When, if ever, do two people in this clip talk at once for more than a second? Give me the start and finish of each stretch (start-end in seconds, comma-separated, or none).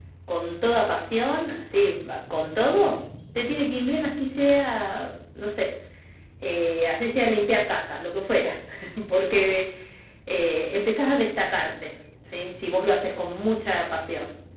none